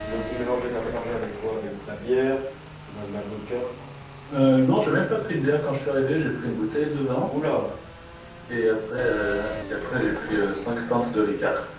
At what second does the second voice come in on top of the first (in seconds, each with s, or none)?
none